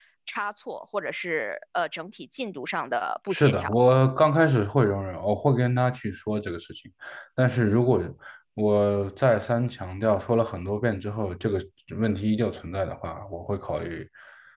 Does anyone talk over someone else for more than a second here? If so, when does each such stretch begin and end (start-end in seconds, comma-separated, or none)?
none